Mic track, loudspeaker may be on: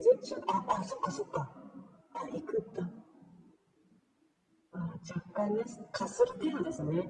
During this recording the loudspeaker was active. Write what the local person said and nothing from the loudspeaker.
none

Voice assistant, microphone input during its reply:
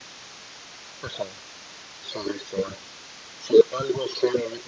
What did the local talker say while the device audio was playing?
none

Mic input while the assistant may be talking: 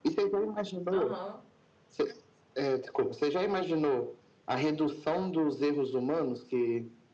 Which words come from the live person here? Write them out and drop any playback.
Aham.

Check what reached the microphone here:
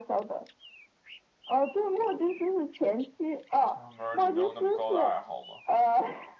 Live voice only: 就是门儿你没有那么高的爱好吗？

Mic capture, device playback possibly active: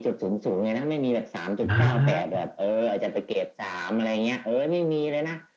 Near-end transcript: อ่า

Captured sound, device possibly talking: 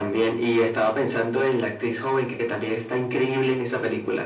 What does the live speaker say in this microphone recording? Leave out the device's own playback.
none

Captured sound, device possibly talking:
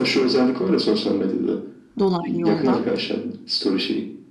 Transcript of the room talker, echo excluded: dolaylı yoldan.

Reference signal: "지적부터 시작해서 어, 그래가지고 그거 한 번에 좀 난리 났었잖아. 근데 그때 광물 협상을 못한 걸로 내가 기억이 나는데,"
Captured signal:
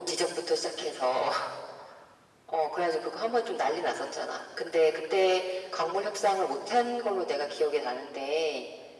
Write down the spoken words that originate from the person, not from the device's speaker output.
none

